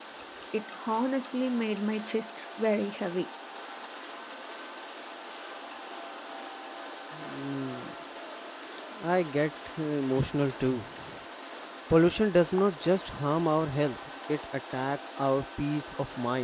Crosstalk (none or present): none